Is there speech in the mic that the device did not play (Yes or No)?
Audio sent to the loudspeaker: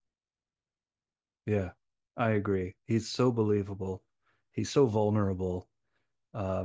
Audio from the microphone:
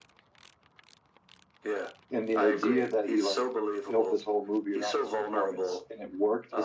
Yes